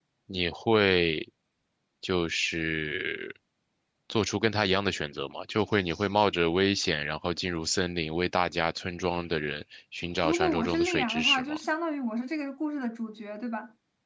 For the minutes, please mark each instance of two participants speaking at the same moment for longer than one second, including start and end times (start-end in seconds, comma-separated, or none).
10.2-11.6